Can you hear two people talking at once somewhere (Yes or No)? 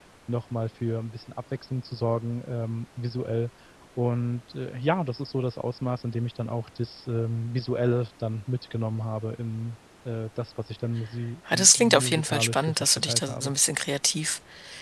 Yes